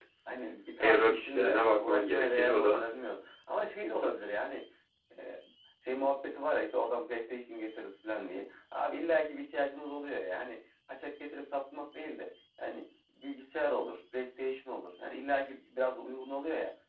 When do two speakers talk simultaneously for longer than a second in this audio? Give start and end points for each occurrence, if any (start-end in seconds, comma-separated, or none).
0.8-2.8